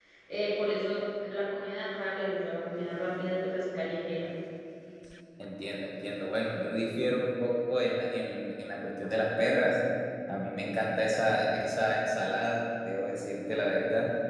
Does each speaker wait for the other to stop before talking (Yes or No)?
Yes